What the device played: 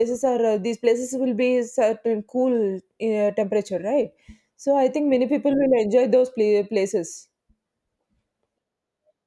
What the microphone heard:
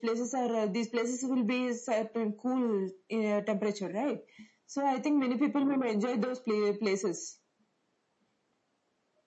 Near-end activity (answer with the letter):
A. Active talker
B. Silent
B